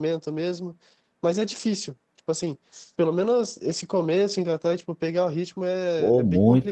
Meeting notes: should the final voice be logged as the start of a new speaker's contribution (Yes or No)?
Yes